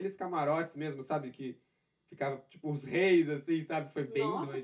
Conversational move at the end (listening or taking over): taking over